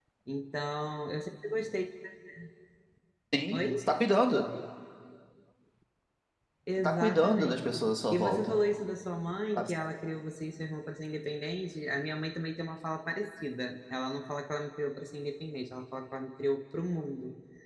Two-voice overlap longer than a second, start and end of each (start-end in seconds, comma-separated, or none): 6.8-8.6